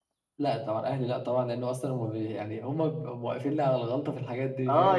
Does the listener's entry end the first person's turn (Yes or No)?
Yes